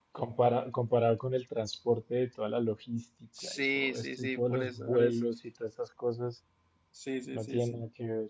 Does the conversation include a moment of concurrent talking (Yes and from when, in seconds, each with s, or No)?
Yes, from 3.4 s